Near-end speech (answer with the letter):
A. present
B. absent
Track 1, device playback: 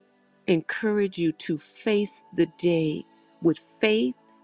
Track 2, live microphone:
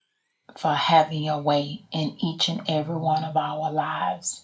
A